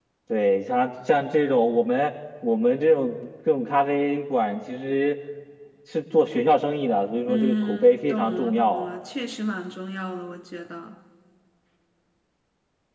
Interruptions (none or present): present